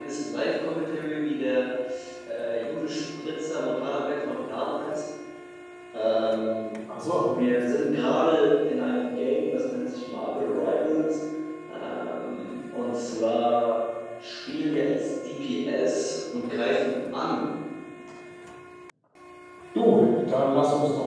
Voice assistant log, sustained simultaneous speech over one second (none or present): none